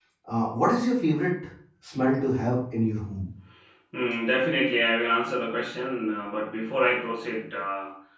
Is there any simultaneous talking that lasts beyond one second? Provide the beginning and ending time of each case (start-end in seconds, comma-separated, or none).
none